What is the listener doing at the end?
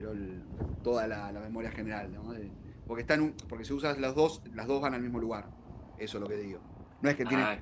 listening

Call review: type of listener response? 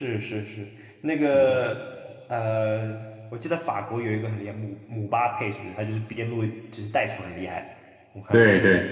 taking over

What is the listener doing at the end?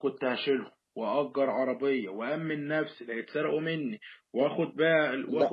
taking over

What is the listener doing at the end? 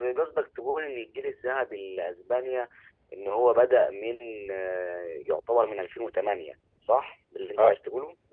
taking over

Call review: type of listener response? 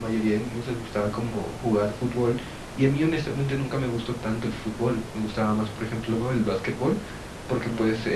listening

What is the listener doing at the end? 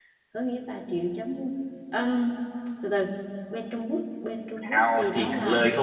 taking over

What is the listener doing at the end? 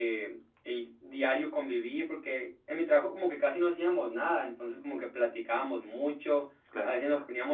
listening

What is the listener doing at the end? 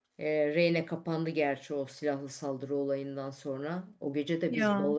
listening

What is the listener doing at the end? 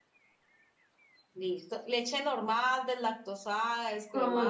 taking over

